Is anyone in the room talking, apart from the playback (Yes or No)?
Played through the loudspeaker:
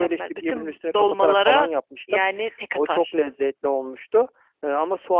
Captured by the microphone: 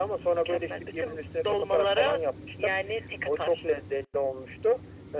No